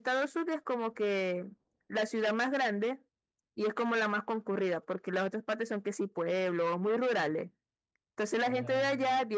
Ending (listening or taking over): listening